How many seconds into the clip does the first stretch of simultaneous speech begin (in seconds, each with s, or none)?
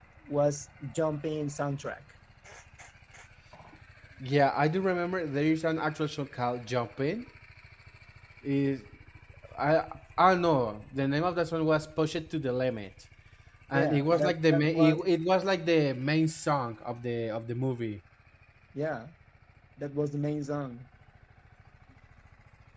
13.7 s